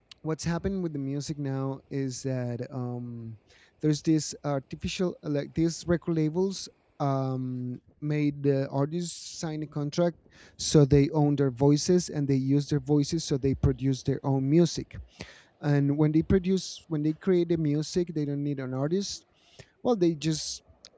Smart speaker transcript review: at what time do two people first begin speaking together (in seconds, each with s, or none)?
none